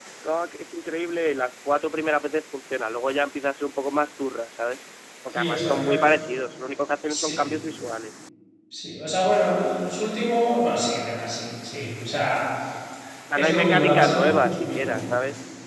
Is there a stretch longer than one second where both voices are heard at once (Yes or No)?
Yes